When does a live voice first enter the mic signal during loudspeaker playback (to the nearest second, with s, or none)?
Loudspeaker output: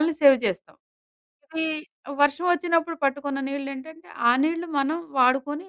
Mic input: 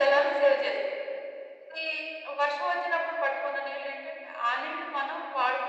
none